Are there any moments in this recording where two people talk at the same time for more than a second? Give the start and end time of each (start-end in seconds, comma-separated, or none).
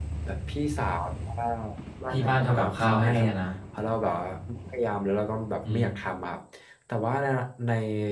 2.1-3.3